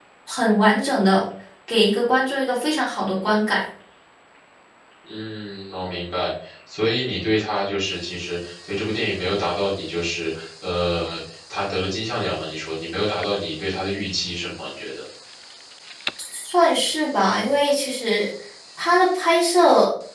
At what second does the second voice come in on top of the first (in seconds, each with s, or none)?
none